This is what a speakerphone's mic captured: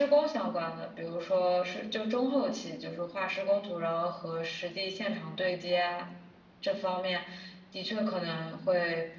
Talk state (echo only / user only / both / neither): echo only